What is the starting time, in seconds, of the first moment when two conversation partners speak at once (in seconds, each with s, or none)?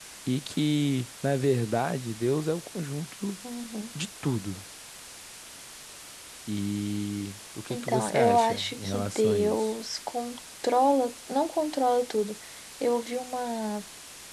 7.7 s